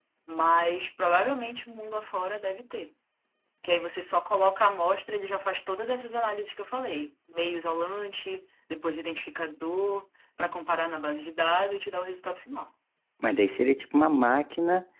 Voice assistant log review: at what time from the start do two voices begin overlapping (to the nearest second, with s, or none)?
none